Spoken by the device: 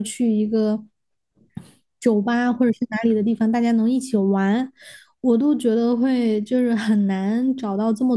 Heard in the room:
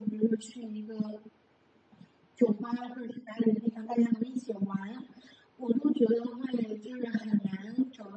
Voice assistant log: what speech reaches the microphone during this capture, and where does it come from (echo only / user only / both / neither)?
echo only